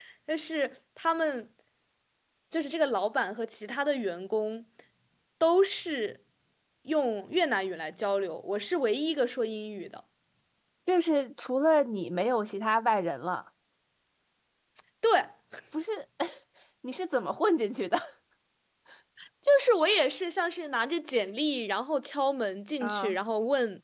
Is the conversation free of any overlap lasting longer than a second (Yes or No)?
Yes